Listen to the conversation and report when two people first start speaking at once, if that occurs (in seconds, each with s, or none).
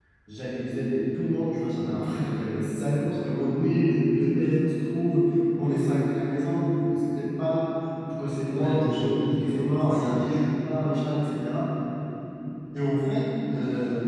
8.5 s